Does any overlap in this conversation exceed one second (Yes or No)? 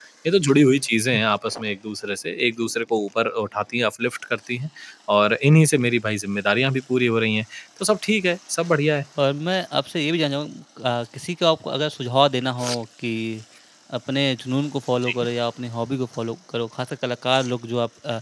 No